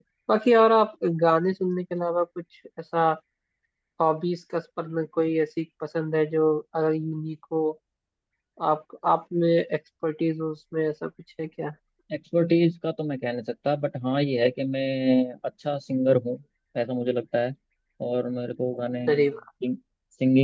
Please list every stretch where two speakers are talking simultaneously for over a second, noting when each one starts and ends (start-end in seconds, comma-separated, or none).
none